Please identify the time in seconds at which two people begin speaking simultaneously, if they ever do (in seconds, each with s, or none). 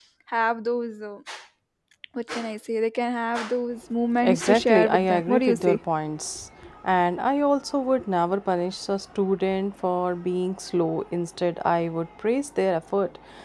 4.2 s